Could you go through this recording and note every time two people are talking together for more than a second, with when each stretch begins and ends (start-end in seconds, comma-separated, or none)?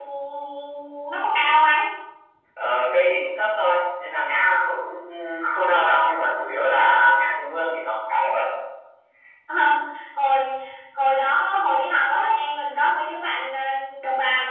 none